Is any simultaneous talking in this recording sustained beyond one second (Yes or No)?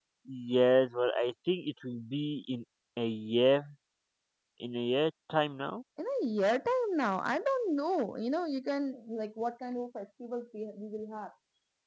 No